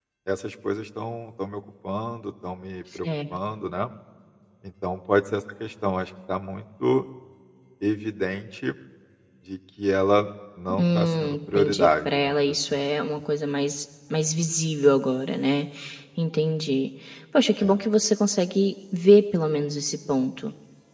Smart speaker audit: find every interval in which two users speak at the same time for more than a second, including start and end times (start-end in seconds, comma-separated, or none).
10.8-12.8